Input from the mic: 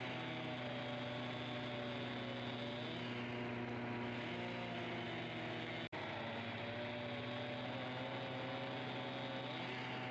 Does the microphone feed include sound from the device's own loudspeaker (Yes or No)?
No